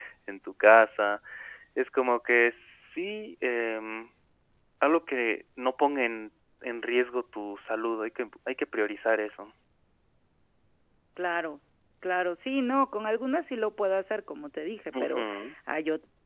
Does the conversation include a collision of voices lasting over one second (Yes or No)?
No